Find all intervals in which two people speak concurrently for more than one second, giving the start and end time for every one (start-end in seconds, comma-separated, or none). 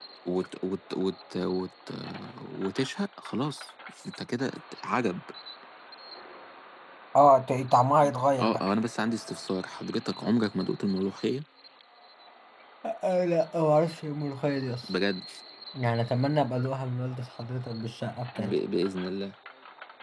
none